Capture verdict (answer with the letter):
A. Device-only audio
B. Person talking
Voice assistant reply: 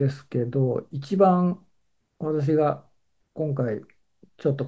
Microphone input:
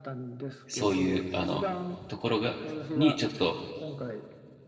B